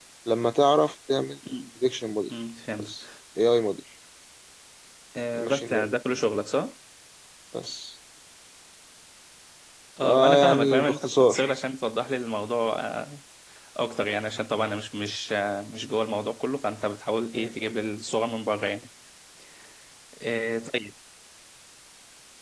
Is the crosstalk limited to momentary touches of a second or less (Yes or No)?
No